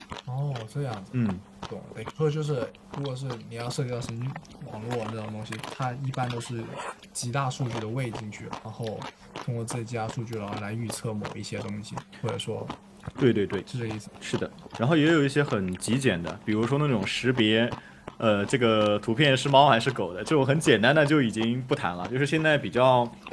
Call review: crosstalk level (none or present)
none